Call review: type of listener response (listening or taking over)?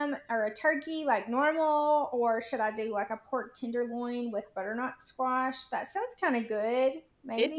taking over